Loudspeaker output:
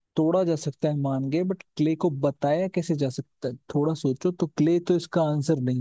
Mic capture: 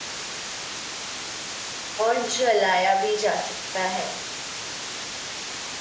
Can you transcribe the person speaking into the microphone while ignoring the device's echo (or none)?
और जलाया भी जा सकता है